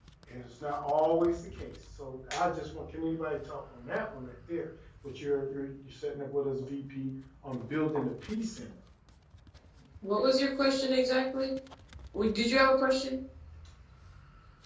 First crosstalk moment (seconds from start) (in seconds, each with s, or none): none